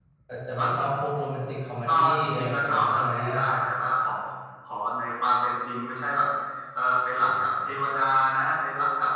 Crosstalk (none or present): present